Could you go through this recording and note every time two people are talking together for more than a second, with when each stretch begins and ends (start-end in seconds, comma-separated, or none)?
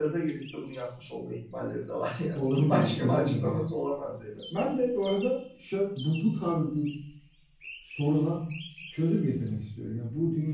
2.3-3.6